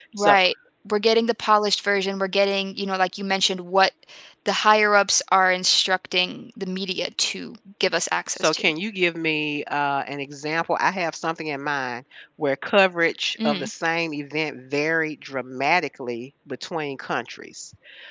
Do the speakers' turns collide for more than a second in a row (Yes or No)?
No